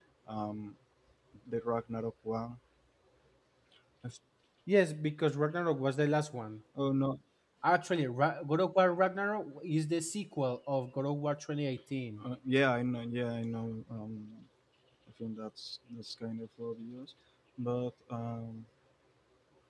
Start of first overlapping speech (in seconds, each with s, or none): none